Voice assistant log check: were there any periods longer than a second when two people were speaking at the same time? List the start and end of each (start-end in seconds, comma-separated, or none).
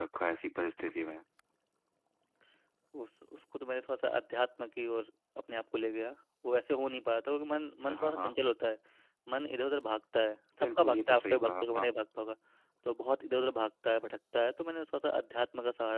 10.6-11.9